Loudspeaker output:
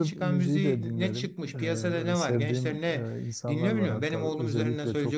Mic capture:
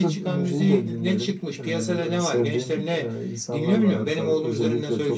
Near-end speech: none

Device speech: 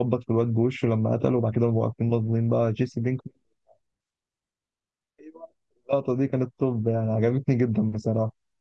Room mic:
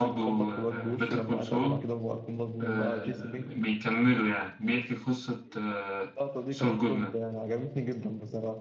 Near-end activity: present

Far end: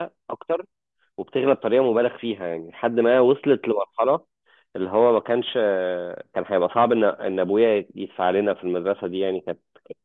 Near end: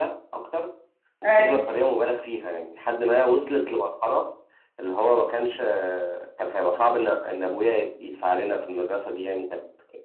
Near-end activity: present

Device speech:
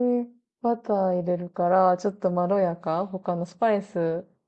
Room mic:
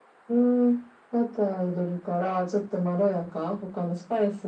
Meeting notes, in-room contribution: none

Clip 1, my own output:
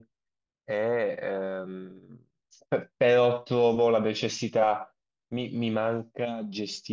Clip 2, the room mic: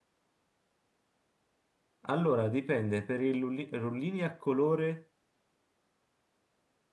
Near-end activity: present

